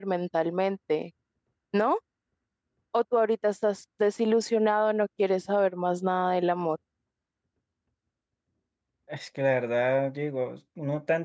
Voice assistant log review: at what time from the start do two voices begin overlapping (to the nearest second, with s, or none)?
none